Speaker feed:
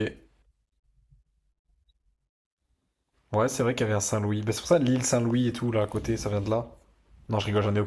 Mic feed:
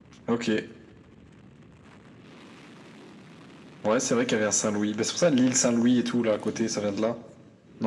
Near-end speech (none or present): none